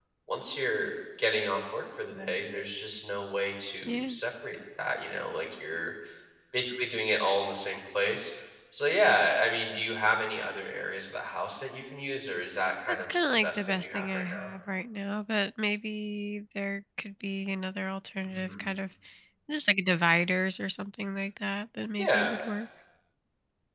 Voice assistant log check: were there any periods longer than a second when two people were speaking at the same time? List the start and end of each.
13.0-14.5

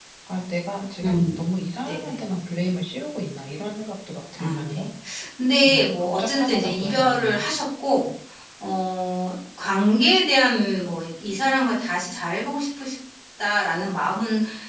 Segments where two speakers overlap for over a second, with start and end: 5.6-7.5

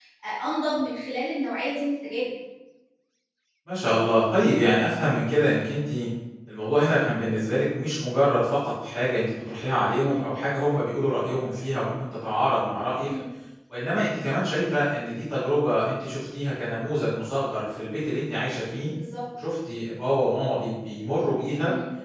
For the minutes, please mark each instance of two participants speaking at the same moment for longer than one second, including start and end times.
none

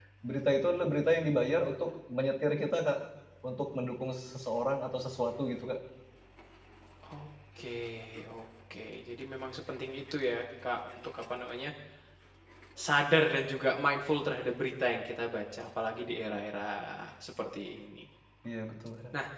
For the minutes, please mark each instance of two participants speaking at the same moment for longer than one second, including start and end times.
none

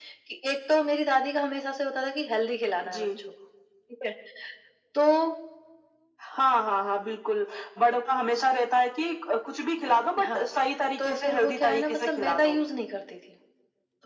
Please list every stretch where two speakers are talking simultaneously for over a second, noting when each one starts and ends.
11.0-12.6

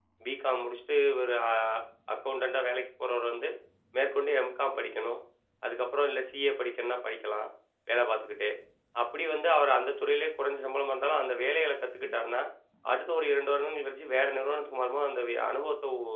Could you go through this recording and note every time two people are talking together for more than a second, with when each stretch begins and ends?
none

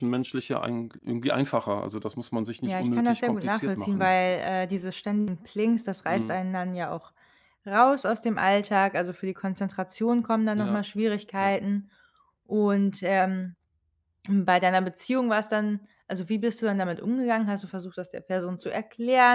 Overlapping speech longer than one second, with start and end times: 2.6-4.1

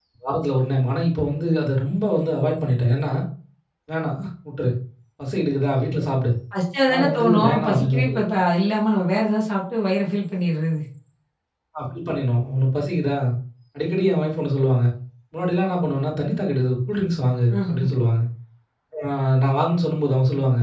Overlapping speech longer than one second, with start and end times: 6.9-8.2

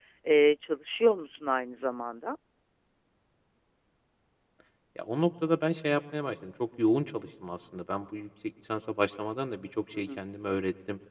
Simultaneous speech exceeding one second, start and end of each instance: none

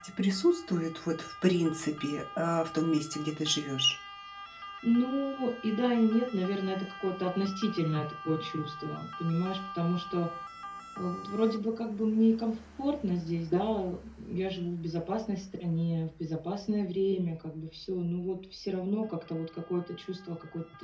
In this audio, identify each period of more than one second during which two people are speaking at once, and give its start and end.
none

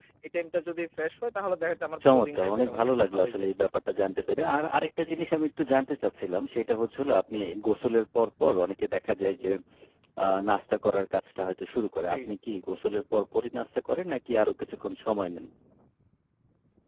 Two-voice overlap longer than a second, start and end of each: 2.1-3.5

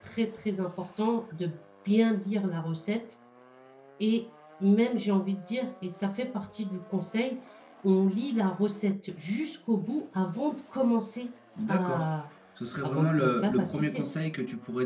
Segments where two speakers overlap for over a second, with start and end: 12.8-14.0

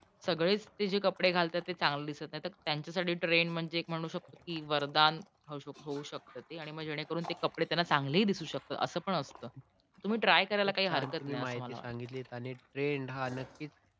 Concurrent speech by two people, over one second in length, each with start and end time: 10.6-11.9

